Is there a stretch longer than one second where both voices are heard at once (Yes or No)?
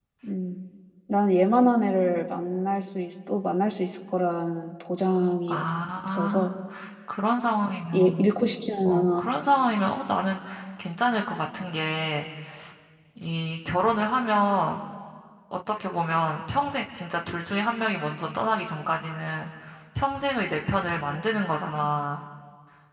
No